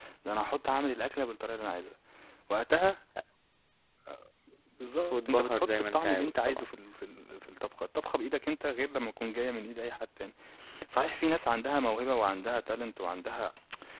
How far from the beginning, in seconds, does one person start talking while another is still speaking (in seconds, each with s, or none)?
5.1 s